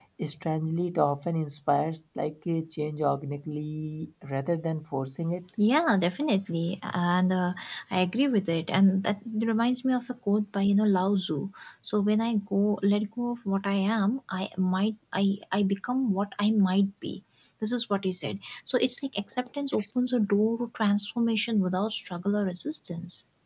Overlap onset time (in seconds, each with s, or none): none